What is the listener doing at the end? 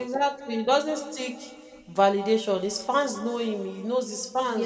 listening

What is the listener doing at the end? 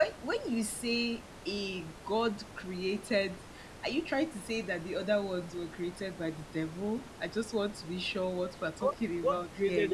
taking over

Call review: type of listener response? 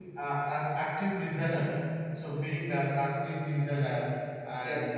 listening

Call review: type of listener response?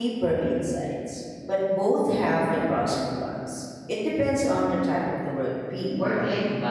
taking over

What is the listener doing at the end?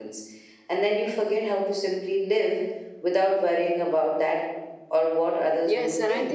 taking over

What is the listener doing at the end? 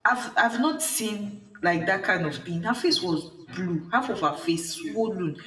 listening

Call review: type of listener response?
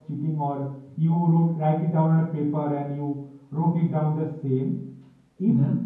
listening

